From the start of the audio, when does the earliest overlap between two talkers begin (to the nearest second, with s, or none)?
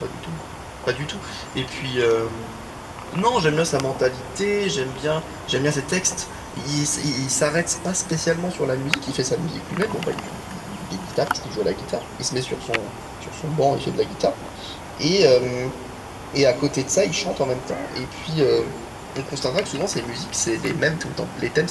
none